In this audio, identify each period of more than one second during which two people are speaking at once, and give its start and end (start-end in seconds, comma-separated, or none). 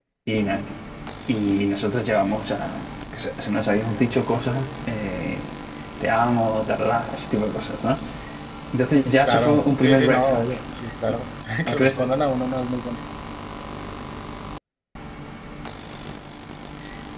9.1-10.4